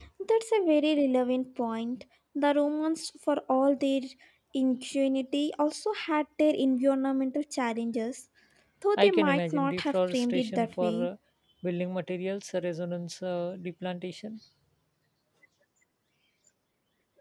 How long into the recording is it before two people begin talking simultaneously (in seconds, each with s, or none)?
9.0 s